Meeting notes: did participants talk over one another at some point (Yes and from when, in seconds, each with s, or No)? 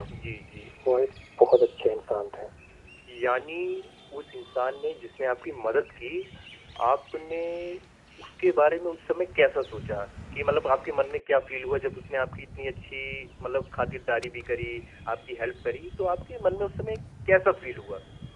No